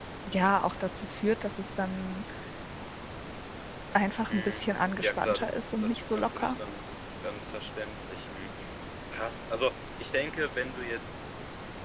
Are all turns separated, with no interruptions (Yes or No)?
No